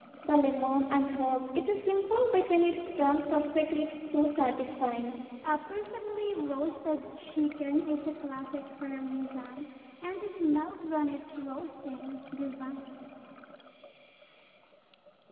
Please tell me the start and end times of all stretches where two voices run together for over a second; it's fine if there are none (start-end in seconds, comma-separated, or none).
none